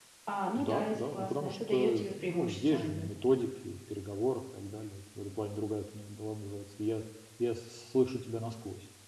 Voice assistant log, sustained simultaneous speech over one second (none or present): present